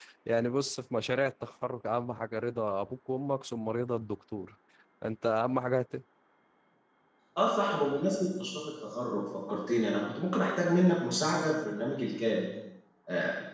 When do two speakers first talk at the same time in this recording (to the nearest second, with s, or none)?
none